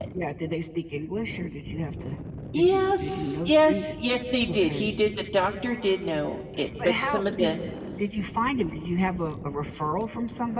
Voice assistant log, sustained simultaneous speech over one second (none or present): present